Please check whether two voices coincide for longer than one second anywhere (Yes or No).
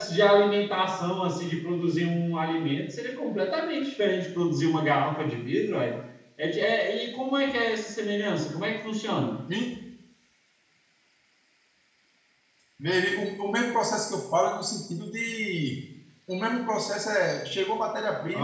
No